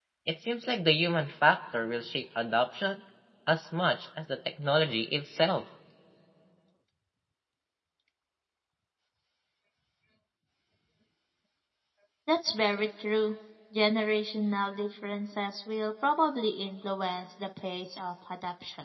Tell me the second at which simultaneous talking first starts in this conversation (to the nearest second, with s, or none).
none